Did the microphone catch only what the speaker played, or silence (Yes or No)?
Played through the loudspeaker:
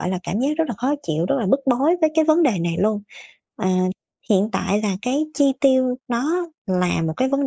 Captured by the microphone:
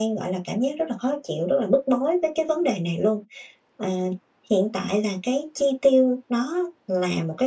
Yes